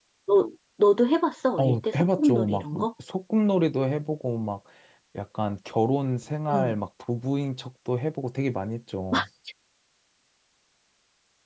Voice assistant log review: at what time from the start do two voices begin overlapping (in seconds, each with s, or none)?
1.6 s